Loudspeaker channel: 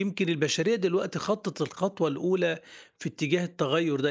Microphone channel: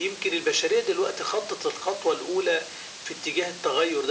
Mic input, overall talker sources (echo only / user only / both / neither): echo only